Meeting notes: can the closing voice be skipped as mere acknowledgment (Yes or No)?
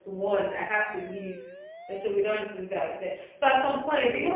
Yes